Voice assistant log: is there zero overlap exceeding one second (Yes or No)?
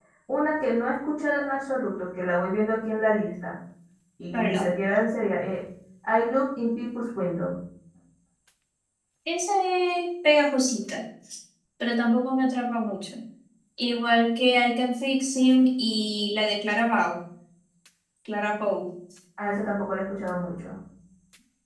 Yes